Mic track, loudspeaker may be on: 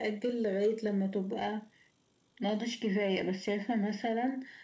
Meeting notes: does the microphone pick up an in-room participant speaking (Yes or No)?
No